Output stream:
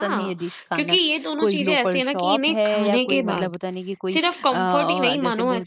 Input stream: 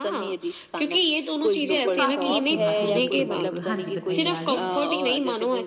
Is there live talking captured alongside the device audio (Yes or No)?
Yes